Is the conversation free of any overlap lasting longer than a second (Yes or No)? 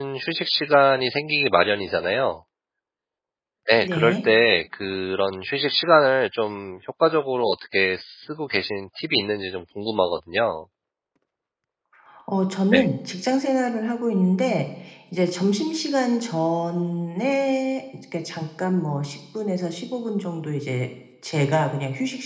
Yes